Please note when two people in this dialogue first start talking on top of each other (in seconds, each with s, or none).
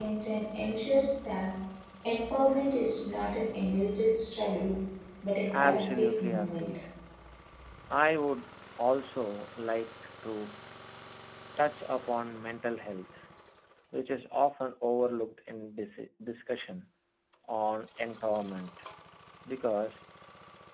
5.6 s